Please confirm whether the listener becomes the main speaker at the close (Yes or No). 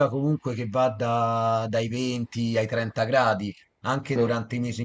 No